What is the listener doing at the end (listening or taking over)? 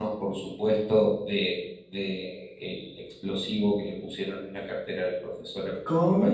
taking over